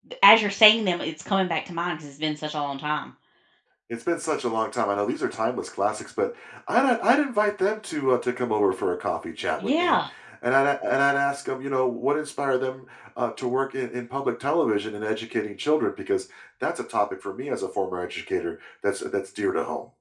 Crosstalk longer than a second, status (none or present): none